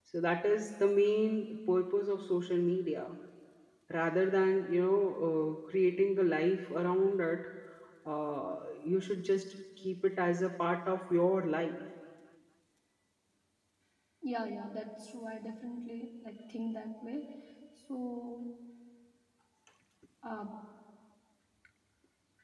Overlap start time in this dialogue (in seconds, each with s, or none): none